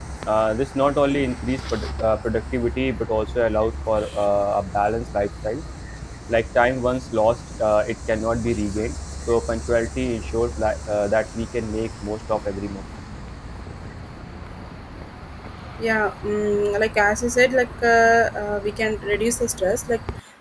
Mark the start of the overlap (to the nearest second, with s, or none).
none